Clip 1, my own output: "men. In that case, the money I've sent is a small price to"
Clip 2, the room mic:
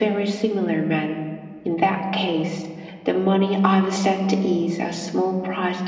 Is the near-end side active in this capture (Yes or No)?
No